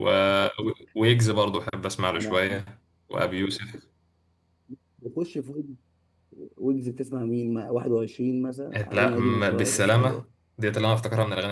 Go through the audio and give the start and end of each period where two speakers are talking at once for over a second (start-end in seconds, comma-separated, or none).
8.9-10.2